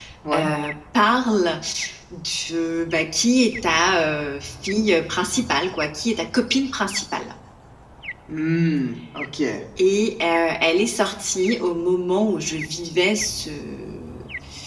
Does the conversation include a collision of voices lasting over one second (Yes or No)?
No